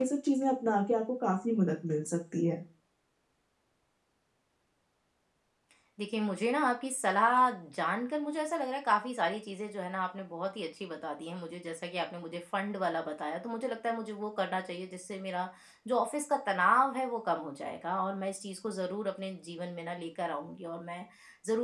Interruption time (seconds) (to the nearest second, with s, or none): none